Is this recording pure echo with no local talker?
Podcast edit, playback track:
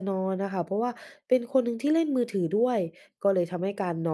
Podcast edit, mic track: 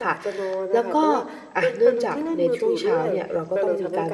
No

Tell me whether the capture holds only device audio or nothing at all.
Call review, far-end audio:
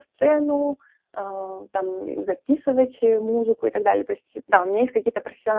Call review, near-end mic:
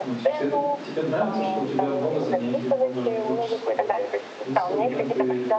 No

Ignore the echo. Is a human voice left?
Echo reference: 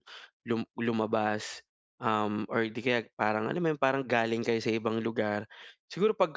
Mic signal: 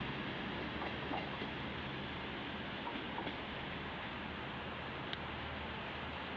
No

